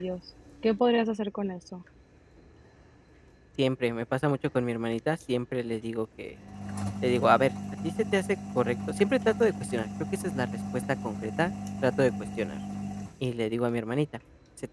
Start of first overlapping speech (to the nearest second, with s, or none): none